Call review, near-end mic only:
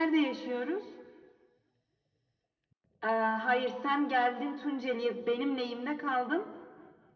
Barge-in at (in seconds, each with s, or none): none